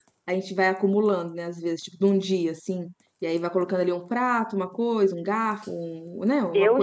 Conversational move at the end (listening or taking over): taking over